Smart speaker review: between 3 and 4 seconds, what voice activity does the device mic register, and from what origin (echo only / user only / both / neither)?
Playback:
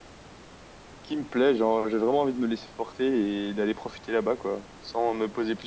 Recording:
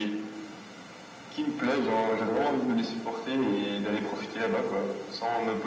echo only